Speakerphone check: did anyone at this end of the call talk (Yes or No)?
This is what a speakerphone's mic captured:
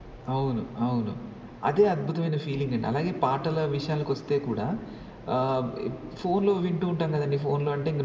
No